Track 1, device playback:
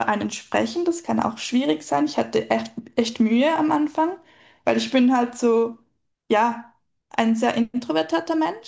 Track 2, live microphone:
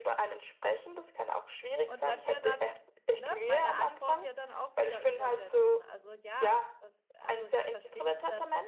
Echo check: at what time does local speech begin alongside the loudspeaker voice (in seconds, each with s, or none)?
1.8 s